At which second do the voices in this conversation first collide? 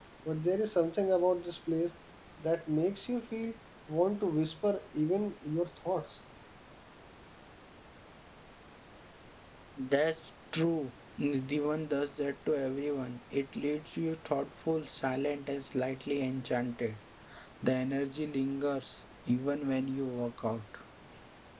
none

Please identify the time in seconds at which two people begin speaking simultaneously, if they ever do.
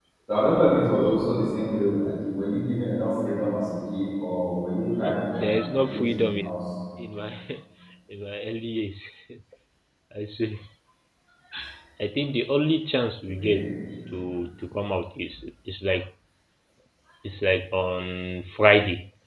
5 s

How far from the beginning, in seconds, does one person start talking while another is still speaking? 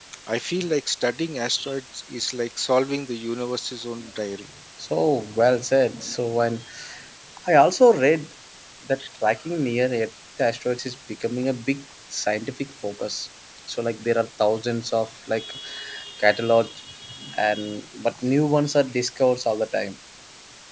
none

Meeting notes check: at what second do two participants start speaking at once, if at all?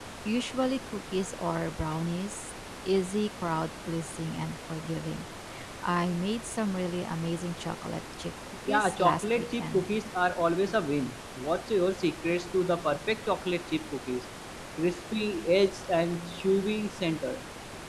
9 s

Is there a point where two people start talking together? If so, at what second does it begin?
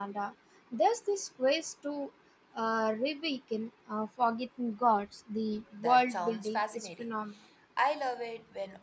6 s

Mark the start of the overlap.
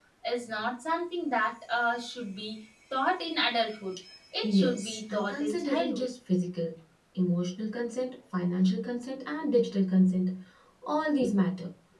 4 s

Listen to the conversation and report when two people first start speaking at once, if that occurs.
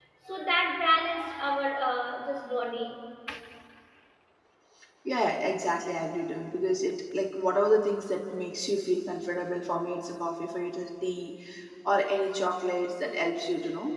none

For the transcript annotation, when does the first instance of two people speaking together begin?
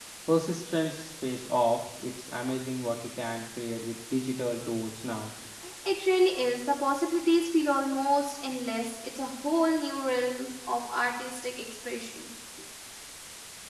none

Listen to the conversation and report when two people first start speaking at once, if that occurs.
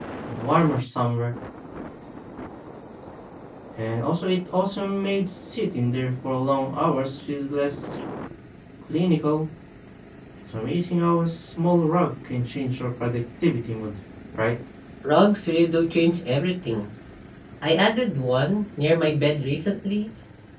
none

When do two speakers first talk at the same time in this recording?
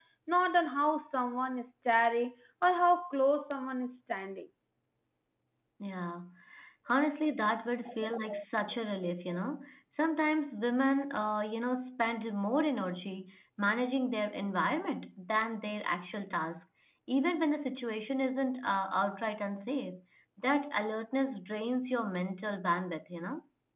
none

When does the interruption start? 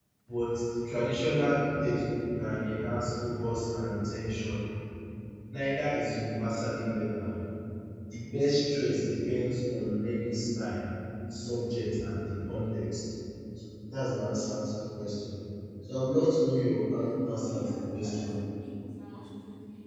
17 s

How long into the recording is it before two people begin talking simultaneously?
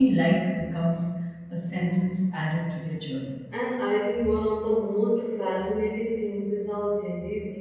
none

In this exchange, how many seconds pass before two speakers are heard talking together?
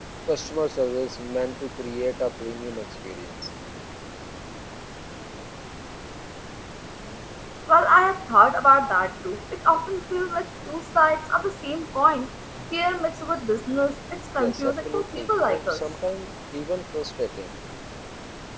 14 s

